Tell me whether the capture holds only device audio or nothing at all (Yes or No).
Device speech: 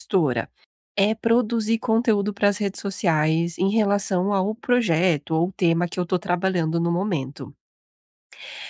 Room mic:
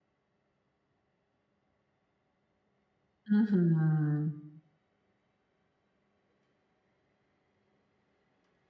No